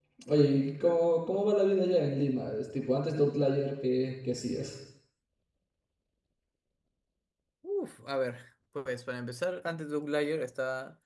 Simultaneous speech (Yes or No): No